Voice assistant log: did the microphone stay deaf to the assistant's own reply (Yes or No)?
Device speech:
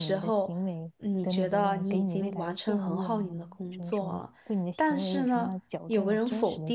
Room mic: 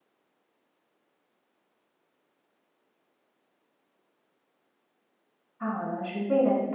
Yes